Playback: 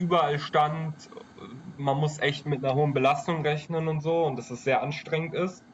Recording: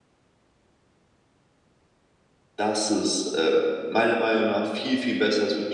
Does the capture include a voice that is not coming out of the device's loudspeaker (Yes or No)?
Yes